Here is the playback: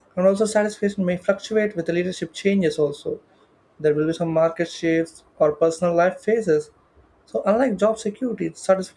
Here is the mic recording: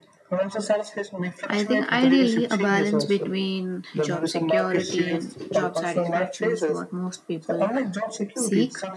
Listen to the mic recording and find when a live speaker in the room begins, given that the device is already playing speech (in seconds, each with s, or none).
1.4 s